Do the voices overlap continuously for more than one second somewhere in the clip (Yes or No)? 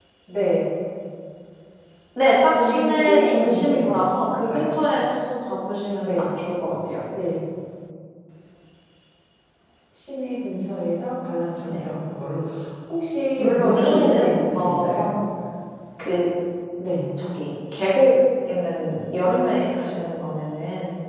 Yes